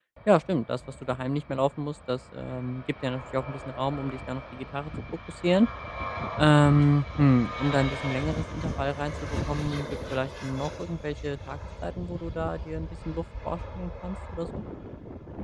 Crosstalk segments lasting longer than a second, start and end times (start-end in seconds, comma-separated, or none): none